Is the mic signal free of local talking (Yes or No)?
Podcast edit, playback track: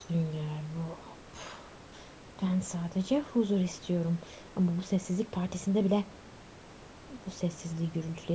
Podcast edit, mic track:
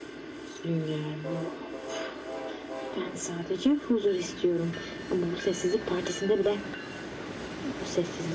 Yes